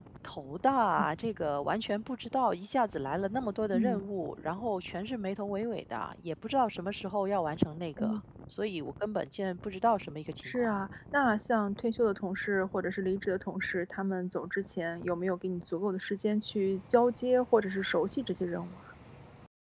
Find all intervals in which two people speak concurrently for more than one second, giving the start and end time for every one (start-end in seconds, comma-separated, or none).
none